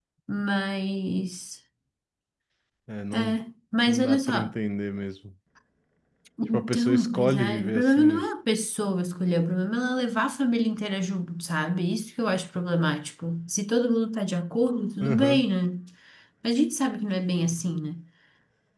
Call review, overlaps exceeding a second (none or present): present